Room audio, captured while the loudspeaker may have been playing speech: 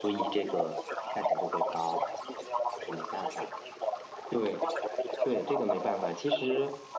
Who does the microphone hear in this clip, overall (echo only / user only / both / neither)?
both